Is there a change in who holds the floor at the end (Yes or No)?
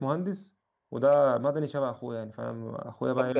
Yes